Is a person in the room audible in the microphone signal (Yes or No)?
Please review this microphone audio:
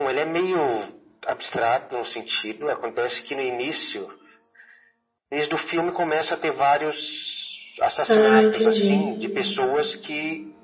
Yes